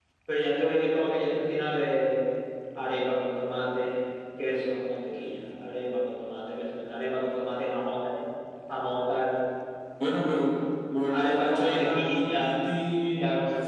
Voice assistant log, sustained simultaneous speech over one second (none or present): present